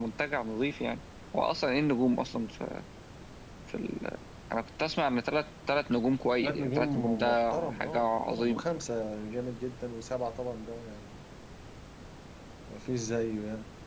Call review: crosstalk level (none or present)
present